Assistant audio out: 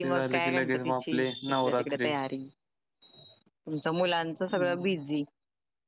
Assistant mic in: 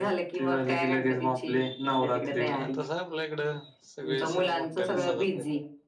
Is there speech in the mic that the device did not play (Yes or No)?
Yes